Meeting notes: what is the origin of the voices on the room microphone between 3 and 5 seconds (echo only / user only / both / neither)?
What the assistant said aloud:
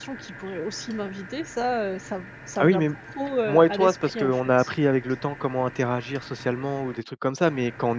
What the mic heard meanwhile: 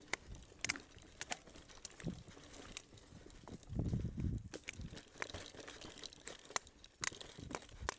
neither